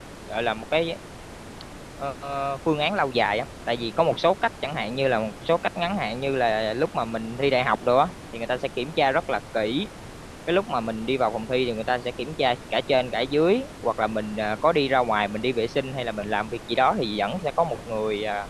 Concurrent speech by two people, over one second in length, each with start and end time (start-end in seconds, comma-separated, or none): none